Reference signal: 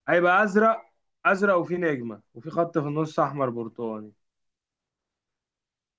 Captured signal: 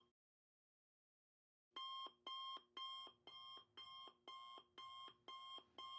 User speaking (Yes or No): No